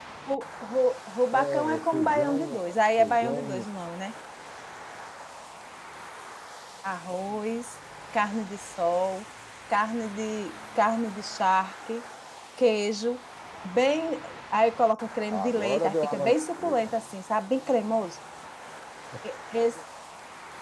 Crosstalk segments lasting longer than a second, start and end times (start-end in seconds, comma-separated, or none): 1.3-3.6, 15.3-16.8